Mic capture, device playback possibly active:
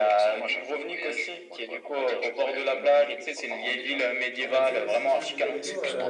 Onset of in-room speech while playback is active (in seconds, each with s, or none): 4.5 s